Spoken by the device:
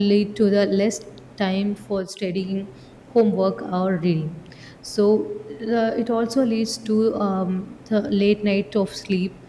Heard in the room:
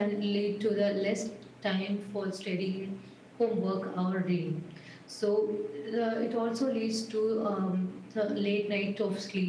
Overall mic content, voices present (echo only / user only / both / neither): echo only